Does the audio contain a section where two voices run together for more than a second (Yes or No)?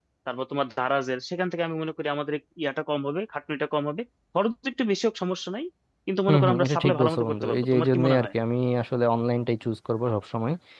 Yes